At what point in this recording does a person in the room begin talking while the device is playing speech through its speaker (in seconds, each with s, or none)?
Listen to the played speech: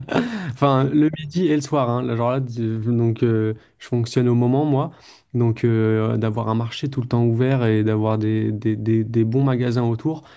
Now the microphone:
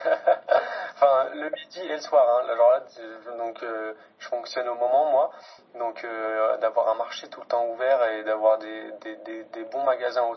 none